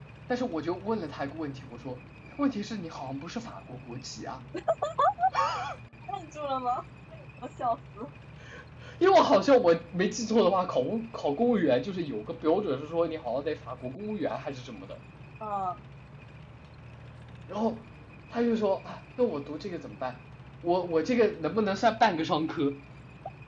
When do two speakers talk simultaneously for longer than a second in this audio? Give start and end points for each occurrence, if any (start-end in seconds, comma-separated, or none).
none